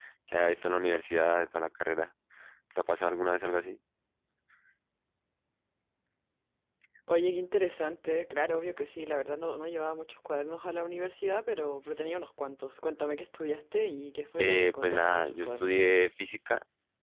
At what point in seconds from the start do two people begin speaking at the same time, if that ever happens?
14.4 s

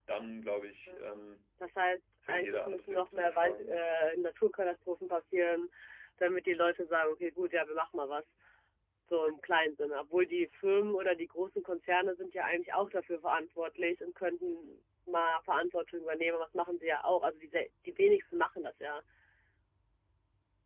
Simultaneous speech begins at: 2.3 s

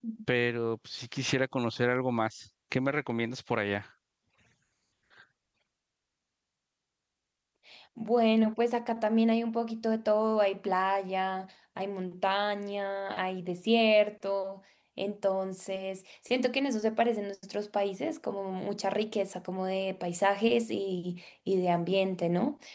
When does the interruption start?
none

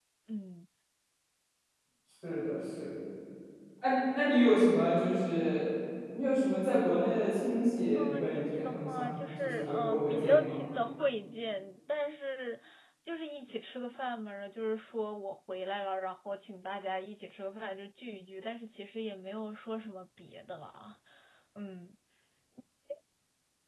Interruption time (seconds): 8.0 s

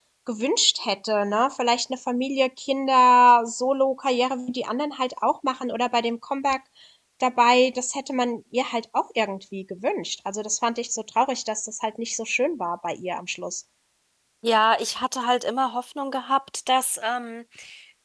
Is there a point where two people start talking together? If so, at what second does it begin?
none

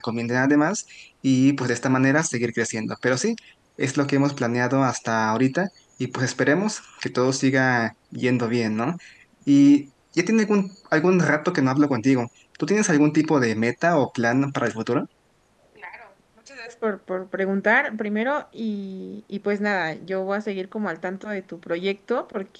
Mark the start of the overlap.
none

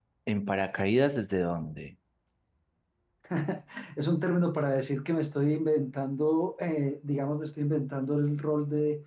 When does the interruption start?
none

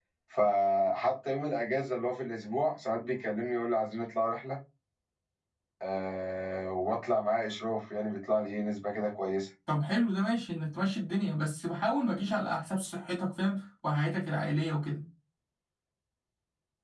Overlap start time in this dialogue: none

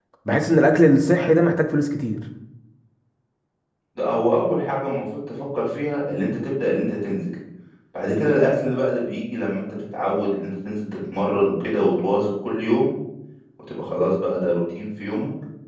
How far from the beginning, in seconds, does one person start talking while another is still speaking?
none

